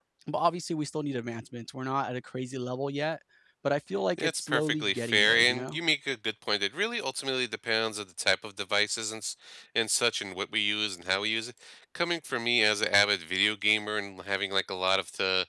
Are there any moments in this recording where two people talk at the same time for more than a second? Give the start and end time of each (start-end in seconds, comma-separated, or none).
4.2-5.8